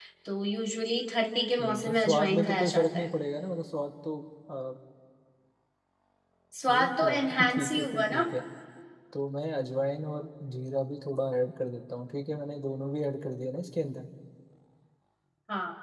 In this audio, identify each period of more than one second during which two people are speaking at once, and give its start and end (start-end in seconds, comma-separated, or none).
1.6-3.1, 6.7-8.2